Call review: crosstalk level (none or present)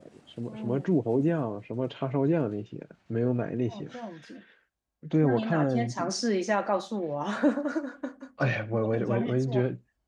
present